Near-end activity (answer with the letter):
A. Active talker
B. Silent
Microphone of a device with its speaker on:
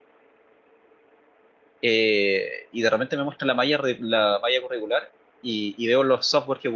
A